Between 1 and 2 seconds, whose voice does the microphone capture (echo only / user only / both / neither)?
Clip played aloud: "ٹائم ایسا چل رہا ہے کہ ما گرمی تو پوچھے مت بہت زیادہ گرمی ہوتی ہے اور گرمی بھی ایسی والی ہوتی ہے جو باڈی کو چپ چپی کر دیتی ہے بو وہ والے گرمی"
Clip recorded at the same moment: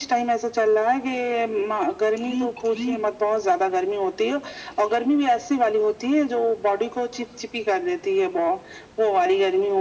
echo only